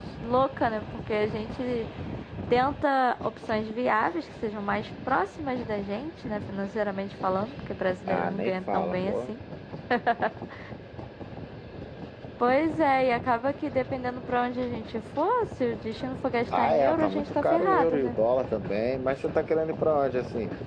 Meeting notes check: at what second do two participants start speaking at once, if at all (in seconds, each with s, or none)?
8.1 s